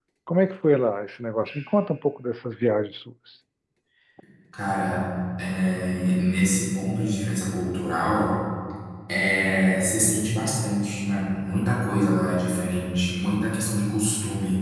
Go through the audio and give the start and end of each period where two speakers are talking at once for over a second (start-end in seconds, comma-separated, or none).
none